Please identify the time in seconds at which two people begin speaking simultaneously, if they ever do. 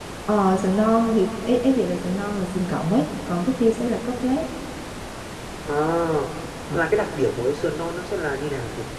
none

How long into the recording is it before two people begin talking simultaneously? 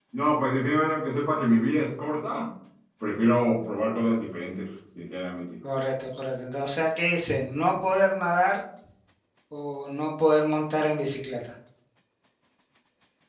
none

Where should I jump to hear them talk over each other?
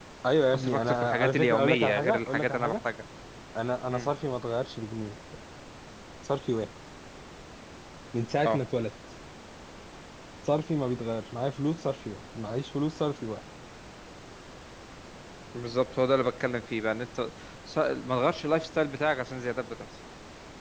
0.6 s

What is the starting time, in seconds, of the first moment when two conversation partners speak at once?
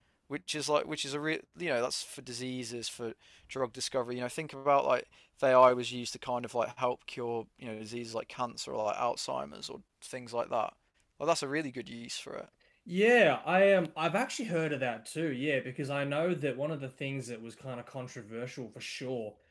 none

